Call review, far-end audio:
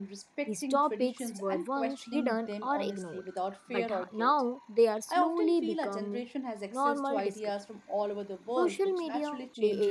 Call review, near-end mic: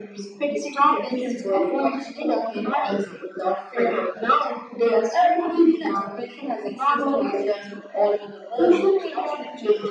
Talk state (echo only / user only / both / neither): echo only